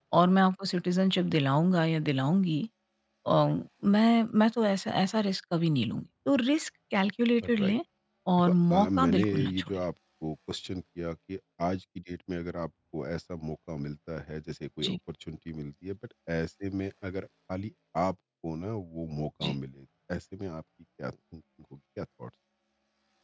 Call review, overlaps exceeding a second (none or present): present